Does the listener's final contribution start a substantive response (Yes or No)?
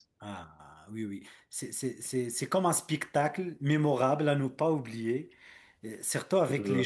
No